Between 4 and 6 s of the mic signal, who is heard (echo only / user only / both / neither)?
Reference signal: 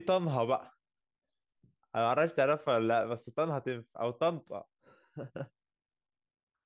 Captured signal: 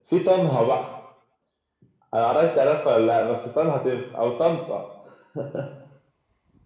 echo only